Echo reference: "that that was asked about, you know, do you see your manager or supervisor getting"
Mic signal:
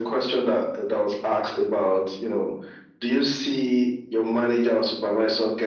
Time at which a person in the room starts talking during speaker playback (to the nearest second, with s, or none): none